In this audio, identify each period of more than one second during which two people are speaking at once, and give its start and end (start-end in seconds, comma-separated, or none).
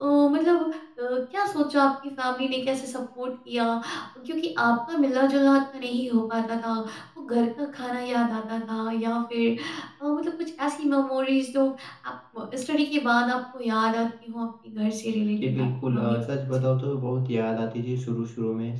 15.4-16.6